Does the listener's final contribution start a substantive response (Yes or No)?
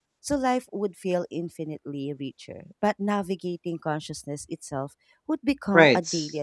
Yes